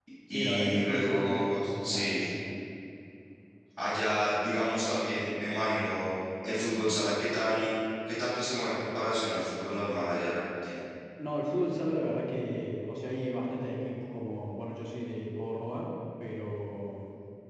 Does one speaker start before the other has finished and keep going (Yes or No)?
Yes